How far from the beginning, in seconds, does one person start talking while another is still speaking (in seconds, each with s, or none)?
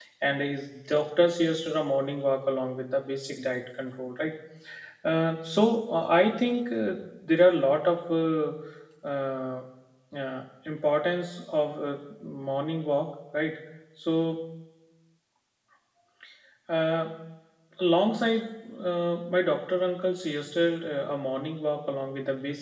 none